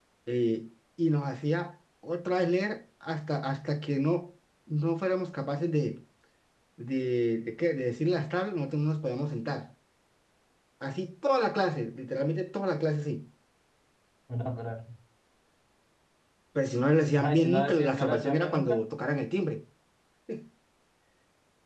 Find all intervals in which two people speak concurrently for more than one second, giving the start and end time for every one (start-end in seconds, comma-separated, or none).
17.2-18.8